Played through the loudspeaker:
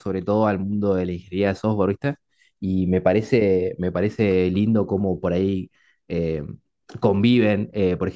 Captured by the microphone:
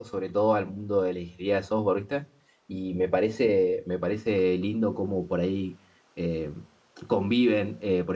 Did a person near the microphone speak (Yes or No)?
No